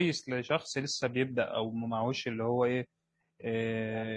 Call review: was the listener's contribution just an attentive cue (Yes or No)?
Yes